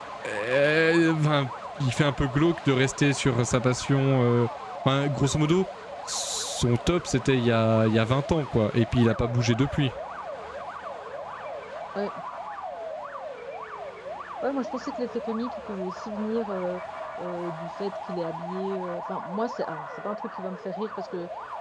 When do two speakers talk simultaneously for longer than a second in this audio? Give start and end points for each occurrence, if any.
none

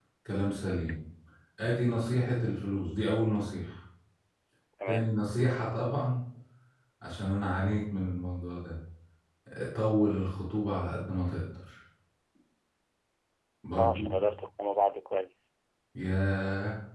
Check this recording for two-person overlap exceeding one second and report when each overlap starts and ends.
none

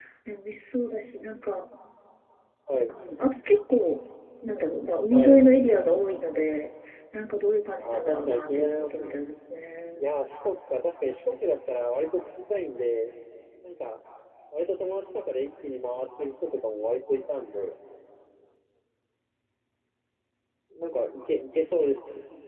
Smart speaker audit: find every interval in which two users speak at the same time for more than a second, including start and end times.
7.8-9.1

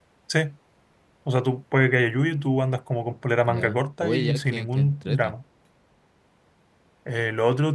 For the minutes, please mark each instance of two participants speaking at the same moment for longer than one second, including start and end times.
3.5-5.3

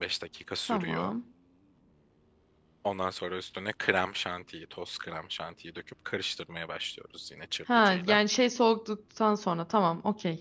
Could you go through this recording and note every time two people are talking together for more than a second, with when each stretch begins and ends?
none

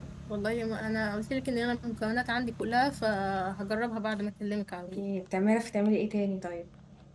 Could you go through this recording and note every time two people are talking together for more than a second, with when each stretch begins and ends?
none

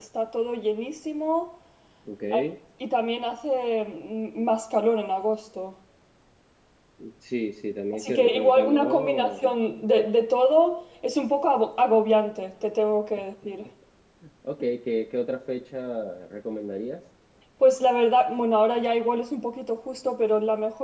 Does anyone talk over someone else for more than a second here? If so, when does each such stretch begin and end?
7.9-9.4

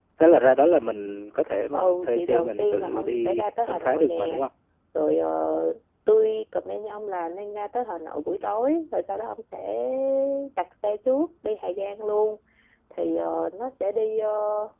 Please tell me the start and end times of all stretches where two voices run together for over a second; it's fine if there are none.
1.7-4.4

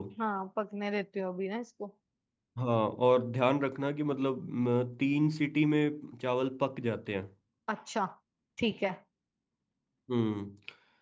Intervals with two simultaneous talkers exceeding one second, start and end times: none

